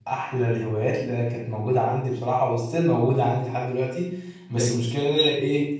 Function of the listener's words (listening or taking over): listening